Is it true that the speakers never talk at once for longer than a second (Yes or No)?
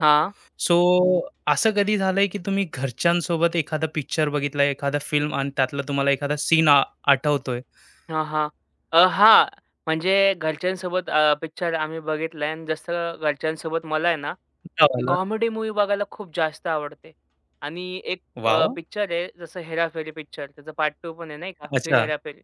Yes